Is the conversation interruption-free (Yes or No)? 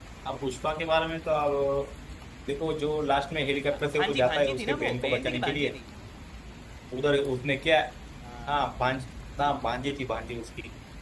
No